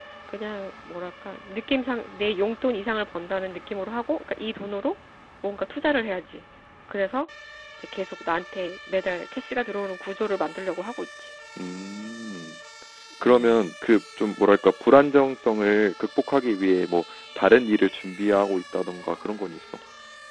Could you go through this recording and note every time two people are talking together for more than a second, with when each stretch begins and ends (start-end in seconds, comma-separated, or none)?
none